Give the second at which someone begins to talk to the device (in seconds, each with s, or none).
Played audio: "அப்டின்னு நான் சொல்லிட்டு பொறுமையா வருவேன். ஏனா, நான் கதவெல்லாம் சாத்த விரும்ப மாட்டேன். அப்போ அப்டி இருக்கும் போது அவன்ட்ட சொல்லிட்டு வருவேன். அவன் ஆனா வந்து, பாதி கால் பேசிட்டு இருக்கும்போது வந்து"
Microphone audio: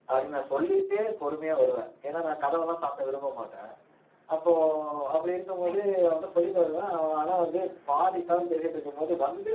5.6 s